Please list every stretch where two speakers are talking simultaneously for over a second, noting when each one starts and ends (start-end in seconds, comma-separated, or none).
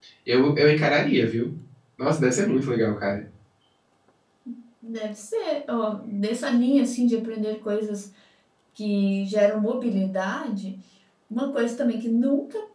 none